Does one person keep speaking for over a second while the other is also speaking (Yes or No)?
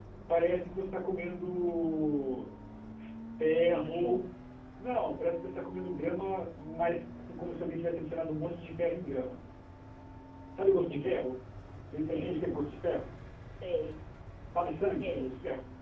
No